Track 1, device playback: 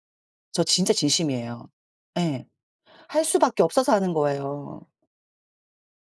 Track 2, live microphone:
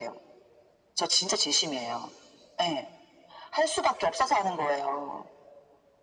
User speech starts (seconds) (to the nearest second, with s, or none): none